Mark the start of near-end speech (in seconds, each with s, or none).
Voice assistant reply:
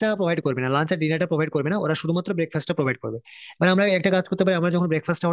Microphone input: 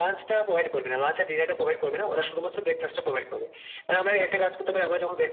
none